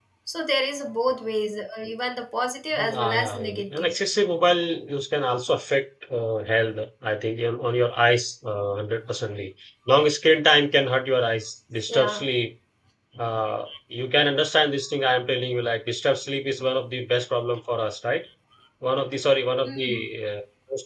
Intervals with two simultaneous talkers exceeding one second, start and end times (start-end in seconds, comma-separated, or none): 2.8-4.0